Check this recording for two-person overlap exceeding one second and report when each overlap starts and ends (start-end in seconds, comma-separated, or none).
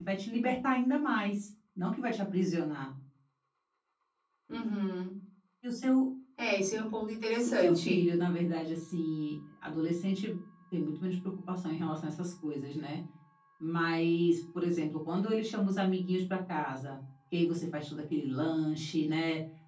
none